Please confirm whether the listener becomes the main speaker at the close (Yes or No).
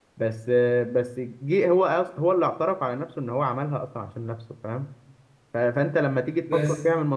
No